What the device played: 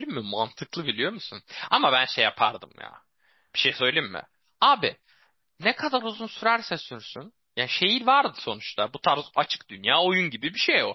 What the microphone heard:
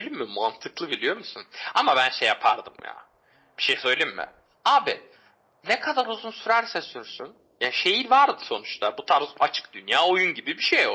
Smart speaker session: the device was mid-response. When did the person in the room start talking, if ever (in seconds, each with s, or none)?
none